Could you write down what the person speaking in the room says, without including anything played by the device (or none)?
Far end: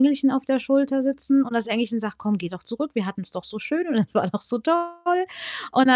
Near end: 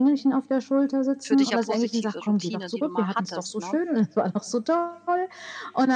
für dich ja positive Routine, die du mal hattest, ne?